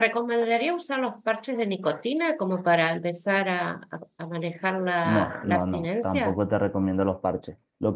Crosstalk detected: Yes, from 5.0 s

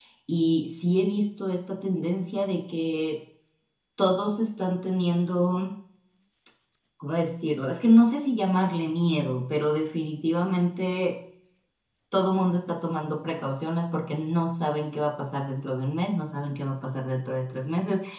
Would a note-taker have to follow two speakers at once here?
No

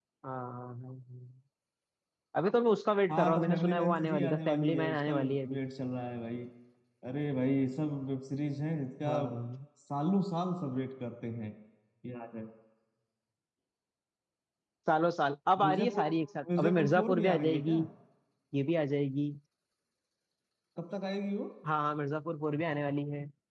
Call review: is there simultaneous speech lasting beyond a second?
Yes, from 3.1 s

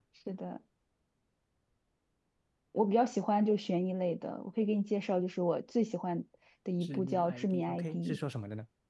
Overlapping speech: Yes, from 6.8 s

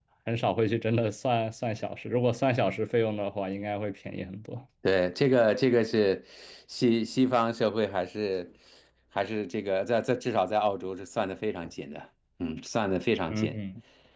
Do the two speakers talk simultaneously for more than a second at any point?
No

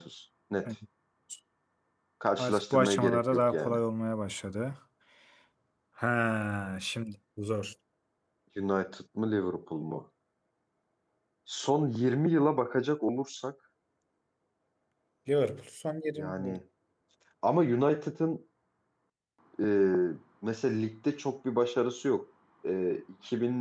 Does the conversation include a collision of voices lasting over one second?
Yes, from 2.4 s

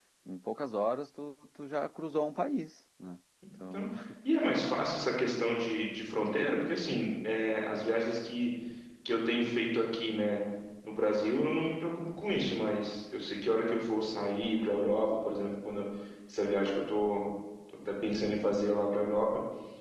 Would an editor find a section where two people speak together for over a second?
No

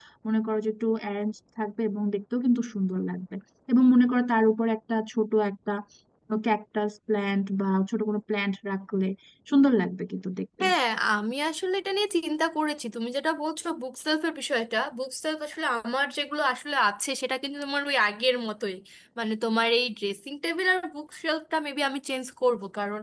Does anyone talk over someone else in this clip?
No

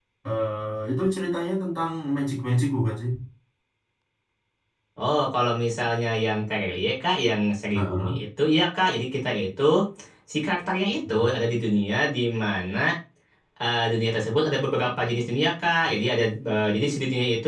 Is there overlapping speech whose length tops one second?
No

